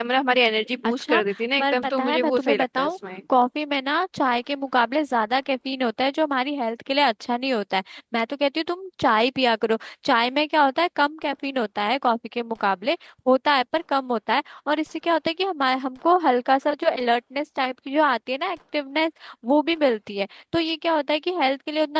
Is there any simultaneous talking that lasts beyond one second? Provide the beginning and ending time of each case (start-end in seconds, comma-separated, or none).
1.6-2.9